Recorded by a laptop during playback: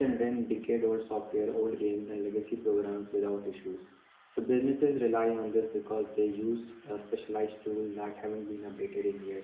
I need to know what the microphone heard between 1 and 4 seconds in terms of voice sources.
user only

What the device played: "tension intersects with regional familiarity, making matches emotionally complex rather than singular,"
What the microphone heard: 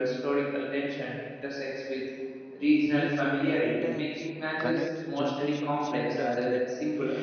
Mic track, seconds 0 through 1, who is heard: echo only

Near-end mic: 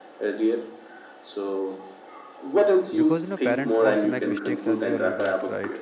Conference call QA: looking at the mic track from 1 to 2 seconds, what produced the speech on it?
echo only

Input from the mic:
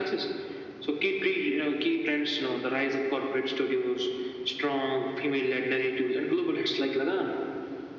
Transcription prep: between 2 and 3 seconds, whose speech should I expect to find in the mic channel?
echo only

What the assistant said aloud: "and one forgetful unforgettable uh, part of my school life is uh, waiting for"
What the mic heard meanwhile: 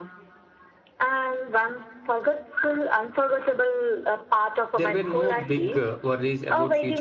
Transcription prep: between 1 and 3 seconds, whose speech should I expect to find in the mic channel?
echo only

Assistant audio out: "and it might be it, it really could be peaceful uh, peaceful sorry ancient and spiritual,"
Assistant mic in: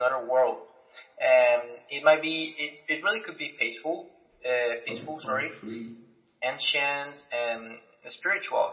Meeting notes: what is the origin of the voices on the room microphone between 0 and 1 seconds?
echo only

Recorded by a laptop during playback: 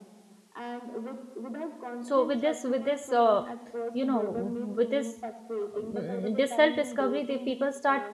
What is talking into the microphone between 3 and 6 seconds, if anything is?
both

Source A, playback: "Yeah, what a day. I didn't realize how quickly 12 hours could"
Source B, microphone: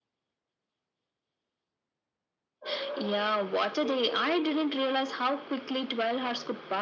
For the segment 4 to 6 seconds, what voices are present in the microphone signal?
echo only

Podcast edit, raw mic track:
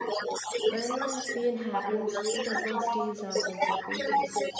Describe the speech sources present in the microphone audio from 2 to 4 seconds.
both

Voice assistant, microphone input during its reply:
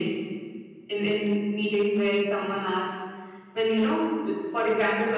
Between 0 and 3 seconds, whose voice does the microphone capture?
echo only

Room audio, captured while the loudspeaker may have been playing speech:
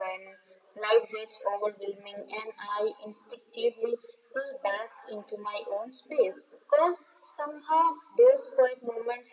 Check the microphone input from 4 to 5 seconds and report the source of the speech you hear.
echo only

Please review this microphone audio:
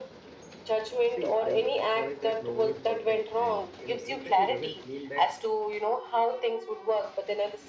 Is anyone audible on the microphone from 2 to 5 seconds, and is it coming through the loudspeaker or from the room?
both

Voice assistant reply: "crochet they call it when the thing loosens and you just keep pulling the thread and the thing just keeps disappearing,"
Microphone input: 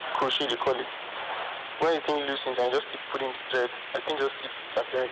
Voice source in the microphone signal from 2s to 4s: echo only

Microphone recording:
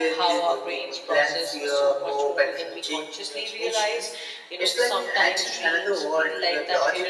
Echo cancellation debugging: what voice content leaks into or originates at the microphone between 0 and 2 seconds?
echo only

